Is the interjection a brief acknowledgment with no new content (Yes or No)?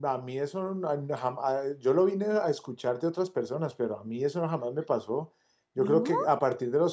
Yes